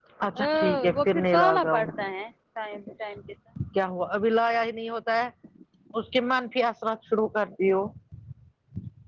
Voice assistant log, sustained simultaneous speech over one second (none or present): present